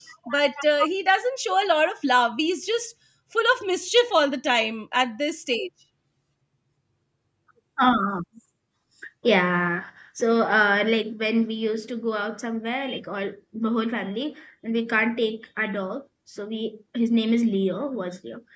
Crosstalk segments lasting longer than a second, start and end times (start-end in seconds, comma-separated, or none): none